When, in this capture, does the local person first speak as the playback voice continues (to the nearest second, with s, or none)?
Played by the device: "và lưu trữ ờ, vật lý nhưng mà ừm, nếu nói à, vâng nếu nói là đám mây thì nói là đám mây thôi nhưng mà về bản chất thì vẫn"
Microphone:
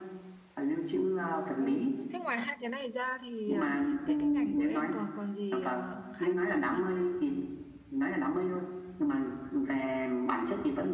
2 s